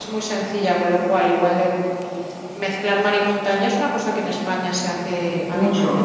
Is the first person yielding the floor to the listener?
Yes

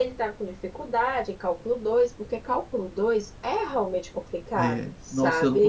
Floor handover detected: Yes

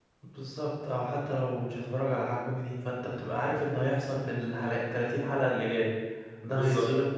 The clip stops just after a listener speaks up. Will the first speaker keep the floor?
Yes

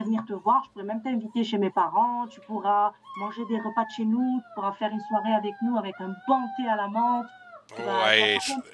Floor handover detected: Yes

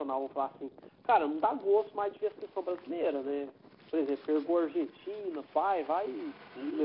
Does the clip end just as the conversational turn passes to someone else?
No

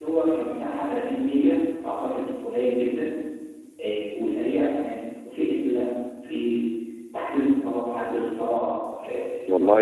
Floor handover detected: Yes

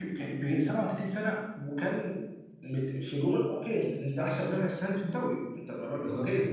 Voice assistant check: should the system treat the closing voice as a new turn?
No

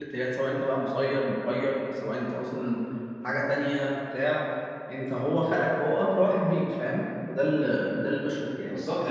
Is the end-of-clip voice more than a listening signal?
Yes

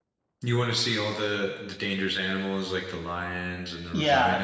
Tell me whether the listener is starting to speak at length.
Yes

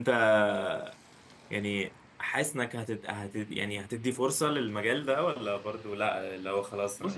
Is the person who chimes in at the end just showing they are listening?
No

